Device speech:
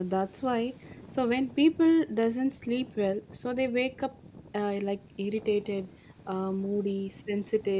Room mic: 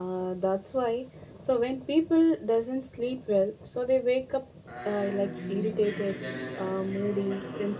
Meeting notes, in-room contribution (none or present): present